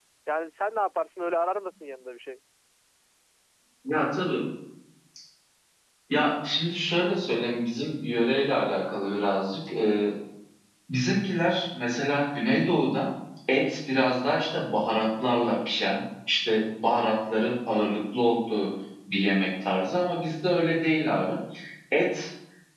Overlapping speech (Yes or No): No